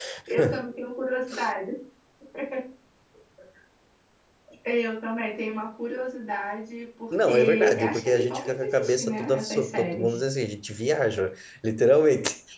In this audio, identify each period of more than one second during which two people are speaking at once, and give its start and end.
7.2-10.2

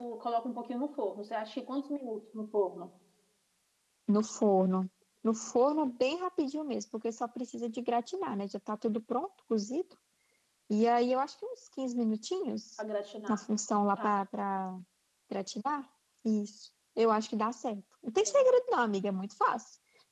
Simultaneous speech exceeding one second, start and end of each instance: none

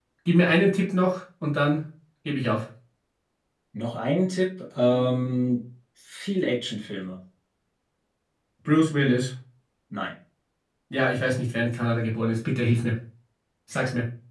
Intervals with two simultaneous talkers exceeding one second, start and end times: none

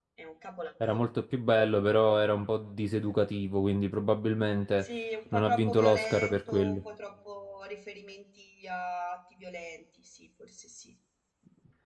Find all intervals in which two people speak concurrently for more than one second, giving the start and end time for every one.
5.3-6.8

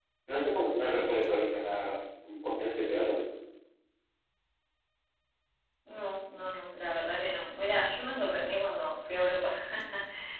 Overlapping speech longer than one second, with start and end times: none

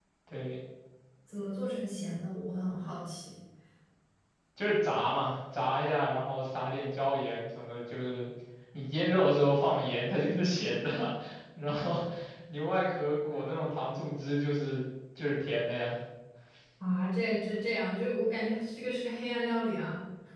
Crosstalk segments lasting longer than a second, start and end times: none

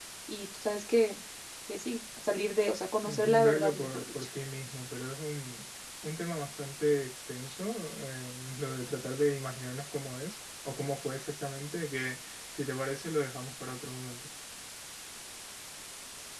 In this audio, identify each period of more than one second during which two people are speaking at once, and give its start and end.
3.0-4.3

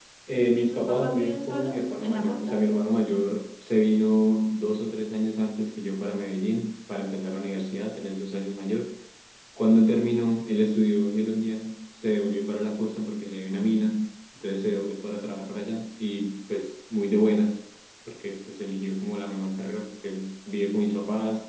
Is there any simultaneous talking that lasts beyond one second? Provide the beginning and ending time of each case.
0.6-2.6

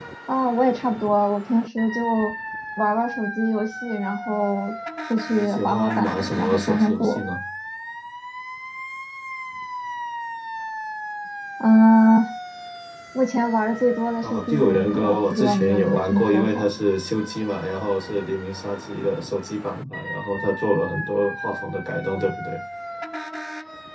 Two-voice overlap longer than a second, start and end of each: 5.3-7.2, 14.2-16.6

